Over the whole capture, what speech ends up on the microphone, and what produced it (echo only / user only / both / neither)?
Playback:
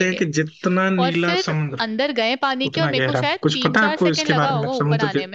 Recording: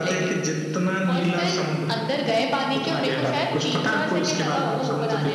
echo only